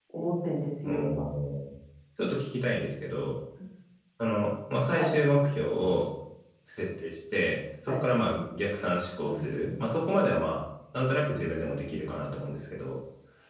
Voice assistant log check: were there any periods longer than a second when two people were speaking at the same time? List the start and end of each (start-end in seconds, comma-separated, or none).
none